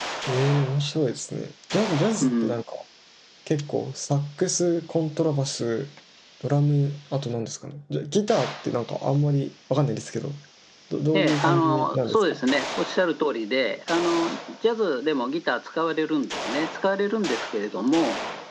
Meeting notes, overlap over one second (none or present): present